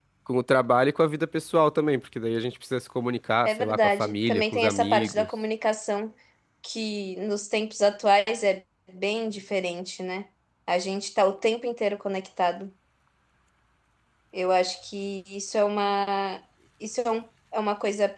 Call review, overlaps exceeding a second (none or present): present